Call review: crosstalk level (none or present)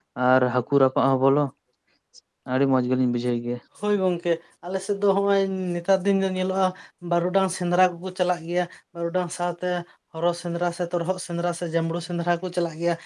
none